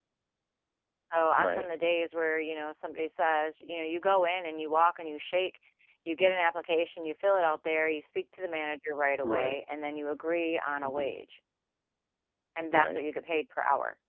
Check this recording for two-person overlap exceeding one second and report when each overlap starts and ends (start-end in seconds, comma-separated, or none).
none